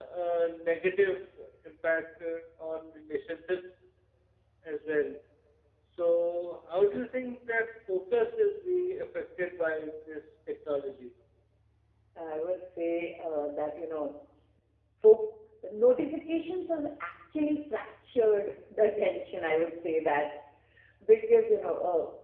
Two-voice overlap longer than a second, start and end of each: none

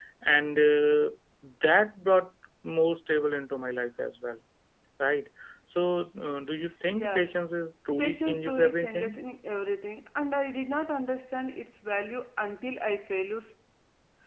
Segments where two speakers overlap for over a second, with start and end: 8.0-9.2

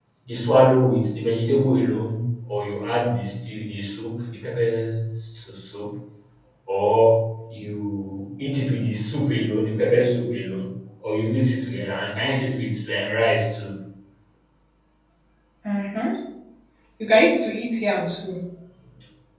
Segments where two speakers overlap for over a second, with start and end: none

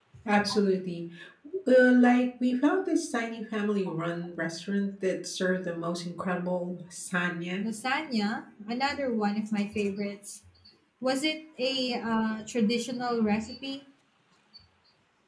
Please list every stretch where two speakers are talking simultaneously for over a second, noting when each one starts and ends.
none

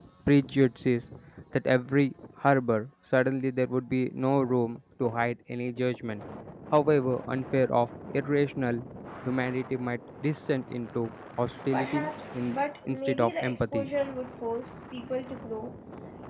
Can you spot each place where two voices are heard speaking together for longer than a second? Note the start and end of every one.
11.7-13.9

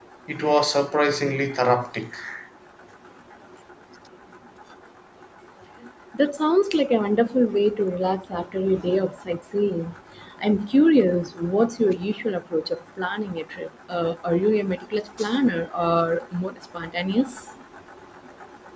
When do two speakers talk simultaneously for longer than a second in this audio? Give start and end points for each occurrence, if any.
none

